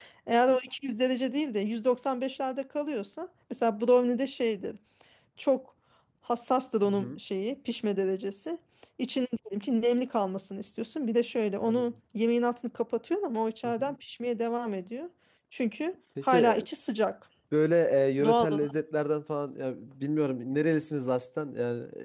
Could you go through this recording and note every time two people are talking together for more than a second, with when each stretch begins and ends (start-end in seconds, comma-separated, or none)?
none